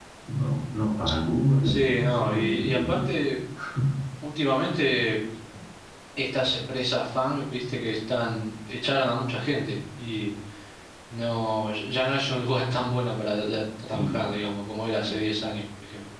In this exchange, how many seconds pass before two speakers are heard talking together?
2 s

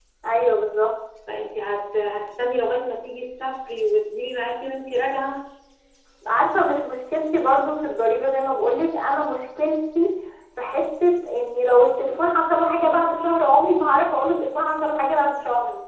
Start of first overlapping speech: none

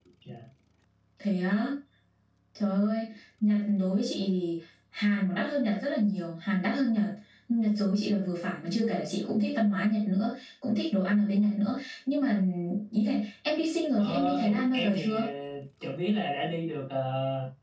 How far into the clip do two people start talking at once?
14 s

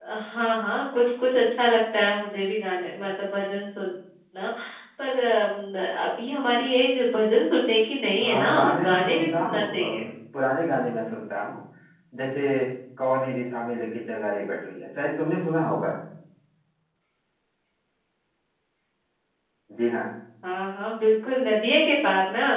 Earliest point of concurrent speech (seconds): 8 s

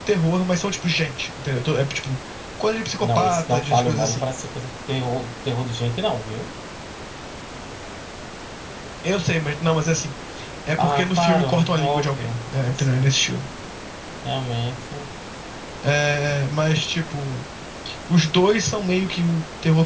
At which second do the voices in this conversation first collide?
3 s

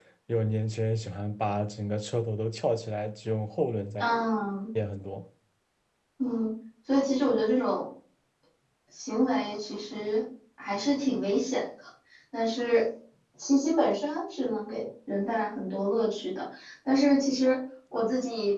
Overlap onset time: none

